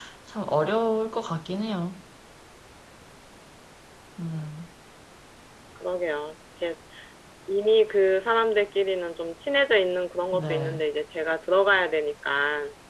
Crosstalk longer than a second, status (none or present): none